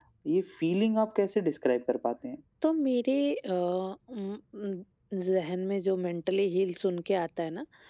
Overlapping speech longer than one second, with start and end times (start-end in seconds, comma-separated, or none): none